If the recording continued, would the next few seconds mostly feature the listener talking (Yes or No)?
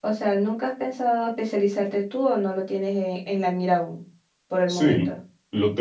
Yes